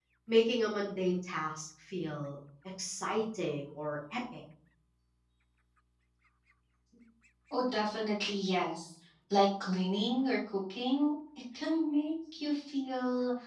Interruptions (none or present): none